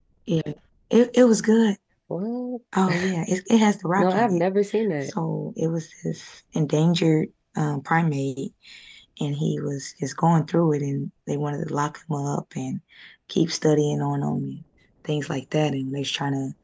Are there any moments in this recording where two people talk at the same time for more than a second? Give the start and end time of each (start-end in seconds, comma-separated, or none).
none